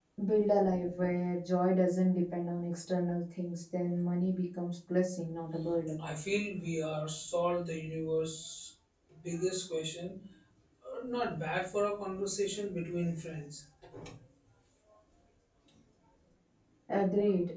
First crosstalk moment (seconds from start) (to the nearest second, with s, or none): none